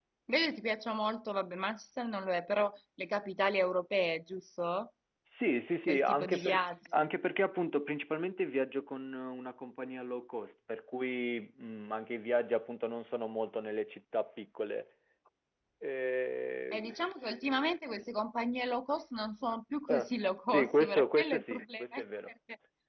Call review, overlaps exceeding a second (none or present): present